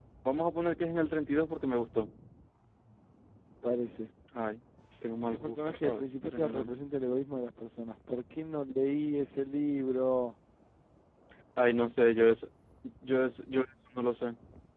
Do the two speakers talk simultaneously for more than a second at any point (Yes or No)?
Yes